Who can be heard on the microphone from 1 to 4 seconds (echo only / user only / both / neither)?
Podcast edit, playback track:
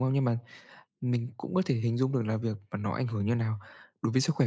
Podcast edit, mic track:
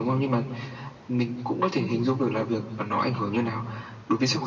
echo only